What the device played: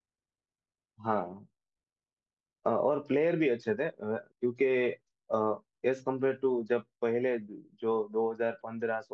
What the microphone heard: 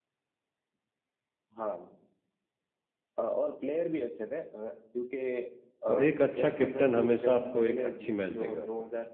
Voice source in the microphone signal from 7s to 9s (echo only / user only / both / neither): both